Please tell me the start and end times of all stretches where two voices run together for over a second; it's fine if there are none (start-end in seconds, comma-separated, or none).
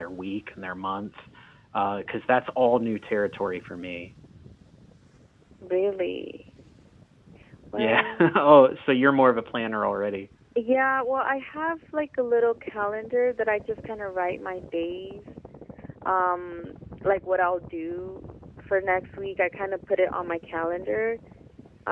none